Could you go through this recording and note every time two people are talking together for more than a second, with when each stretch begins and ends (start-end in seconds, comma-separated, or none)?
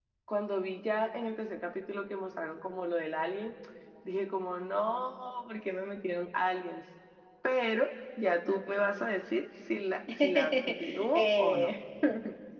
10.2-11.7